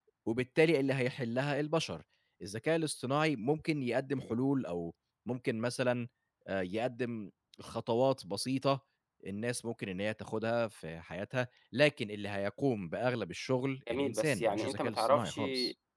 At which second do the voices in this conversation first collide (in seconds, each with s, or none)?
13.9 s